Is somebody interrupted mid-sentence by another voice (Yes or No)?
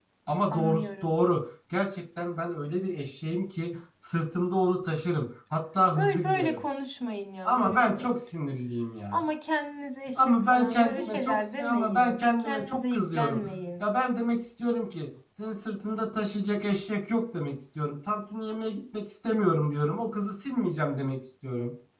Yes